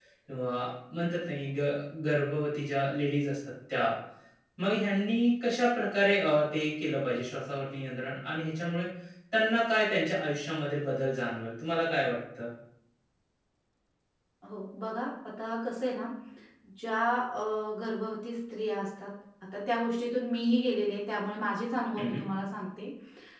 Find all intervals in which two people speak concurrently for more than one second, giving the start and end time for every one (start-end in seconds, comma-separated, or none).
none